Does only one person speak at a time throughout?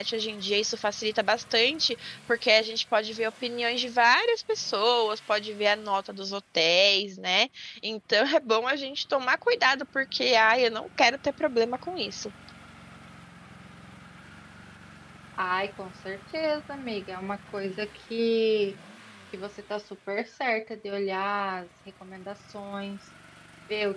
Yes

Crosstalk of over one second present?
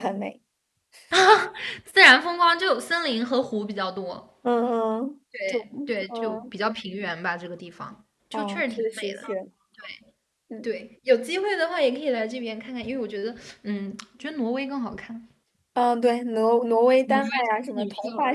Yes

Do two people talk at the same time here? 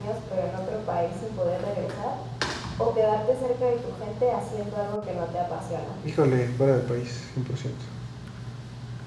No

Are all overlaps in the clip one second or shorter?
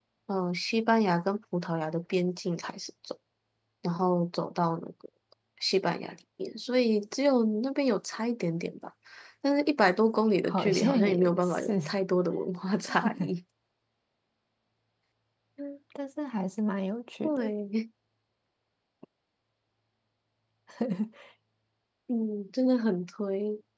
No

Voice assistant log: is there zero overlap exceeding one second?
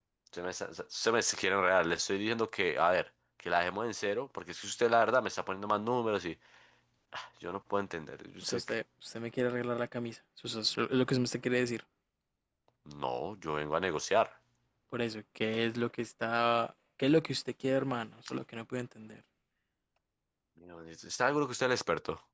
Yes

